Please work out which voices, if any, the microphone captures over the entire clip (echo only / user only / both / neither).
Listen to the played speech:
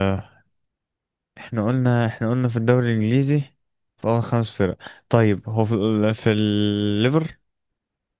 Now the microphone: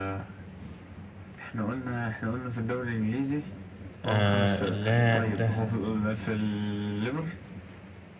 both